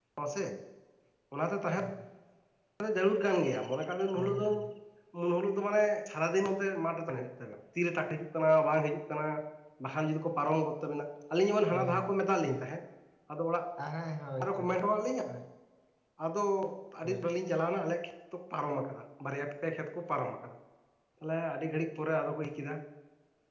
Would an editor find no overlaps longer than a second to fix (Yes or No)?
Yes